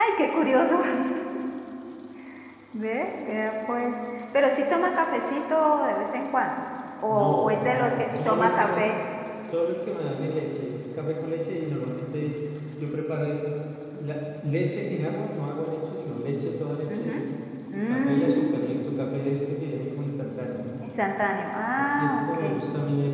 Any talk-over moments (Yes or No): Yes